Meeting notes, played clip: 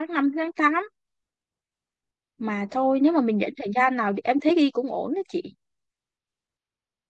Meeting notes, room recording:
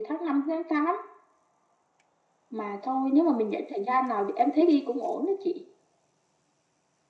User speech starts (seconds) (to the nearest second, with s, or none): none